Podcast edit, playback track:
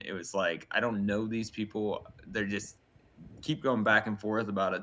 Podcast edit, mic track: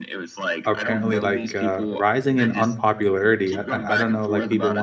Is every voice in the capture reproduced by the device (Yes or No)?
No